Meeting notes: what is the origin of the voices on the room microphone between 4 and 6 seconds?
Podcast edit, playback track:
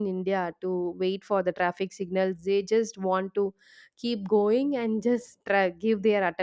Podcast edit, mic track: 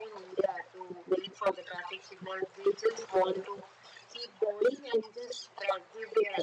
echo only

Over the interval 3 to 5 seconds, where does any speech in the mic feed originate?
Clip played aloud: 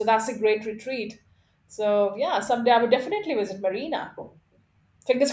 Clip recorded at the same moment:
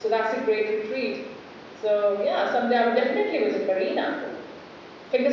echo only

